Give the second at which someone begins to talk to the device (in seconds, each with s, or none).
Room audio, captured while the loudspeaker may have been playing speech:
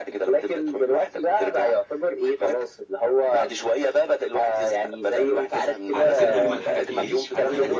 5.5 s